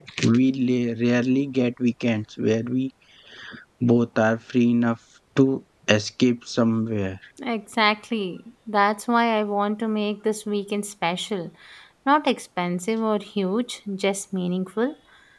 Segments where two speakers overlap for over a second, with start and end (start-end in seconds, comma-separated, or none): none